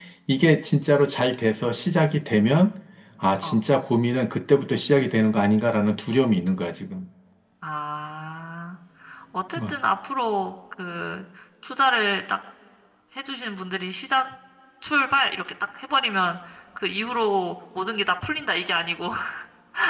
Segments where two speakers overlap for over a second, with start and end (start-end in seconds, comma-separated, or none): none